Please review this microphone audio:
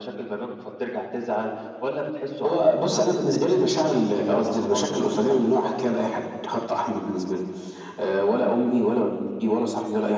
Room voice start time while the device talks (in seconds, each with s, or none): none